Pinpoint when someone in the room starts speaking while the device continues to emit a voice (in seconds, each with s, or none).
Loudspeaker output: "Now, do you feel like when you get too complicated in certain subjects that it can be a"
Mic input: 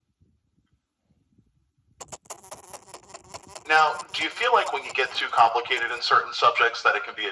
none